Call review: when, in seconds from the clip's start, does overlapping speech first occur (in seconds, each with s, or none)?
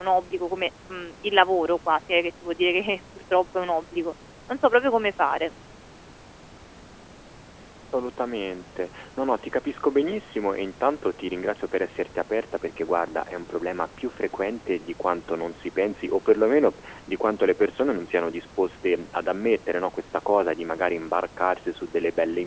none